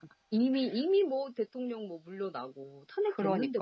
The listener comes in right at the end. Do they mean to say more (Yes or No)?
Yes